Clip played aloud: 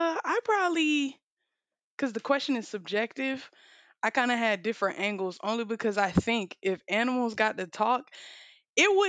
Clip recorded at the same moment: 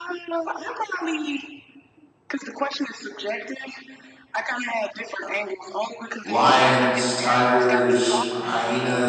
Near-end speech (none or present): present